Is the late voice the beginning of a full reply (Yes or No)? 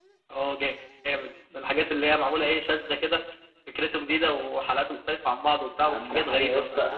Yes